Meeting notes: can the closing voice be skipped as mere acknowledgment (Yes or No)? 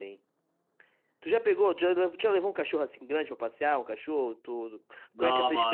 No